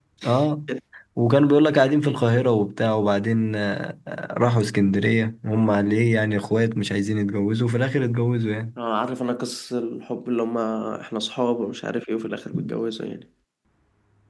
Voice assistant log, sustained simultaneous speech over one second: none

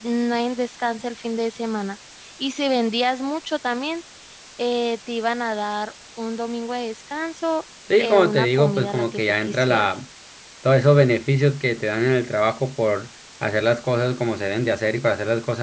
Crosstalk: present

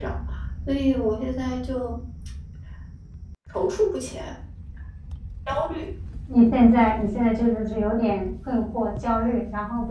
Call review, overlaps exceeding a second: none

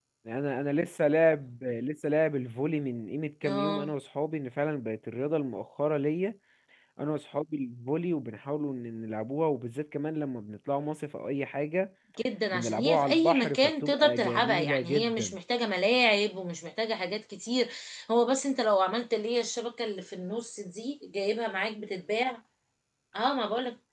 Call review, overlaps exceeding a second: present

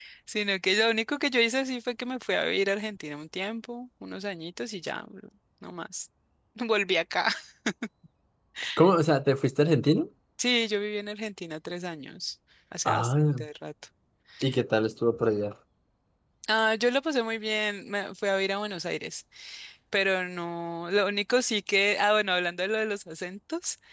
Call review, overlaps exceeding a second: none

